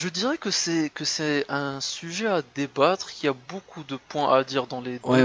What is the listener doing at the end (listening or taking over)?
taking over